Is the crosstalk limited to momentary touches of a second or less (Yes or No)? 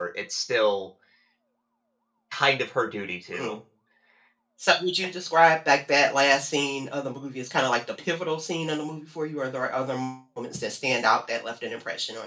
Yes